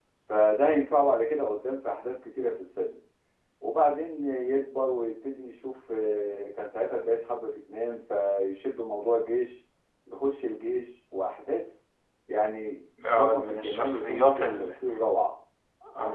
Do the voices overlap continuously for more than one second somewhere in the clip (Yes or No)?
Yes